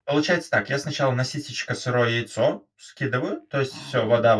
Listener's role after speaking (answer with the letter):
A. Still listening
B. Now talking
A